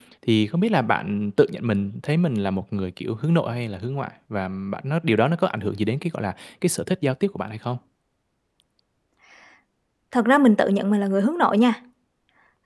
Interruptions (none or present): none